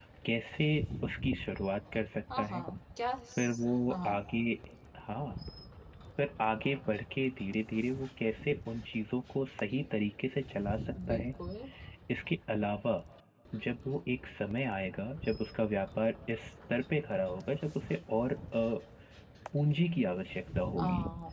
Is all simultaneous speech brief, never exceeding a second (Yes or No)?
Yes